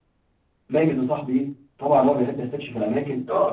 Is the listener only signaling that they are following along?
No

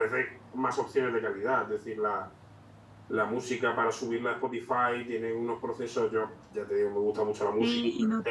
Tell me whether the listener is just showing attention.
No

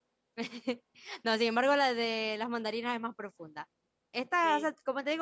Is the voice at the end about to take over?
No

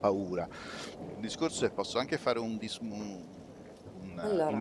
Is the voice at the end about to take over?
No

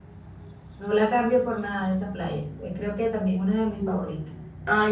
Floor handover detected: Yes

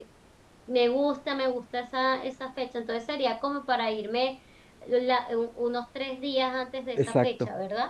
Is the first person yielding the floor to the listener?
Yes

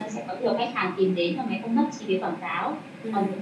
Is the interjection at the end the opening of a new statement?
No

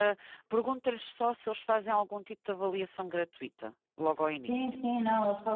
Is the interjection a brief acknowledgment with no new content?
No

